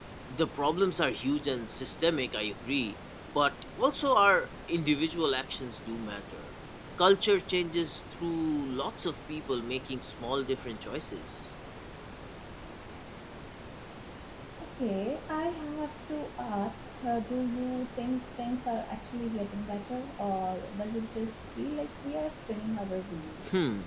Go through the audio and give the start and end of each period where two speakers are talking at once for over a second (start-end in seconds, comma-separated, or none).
none